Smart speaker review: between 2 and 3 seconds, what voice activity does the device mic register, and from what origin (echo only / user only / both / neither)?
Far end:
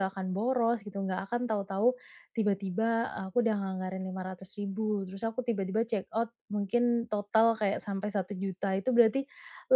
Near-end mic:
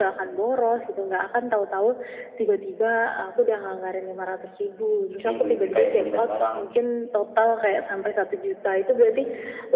echo only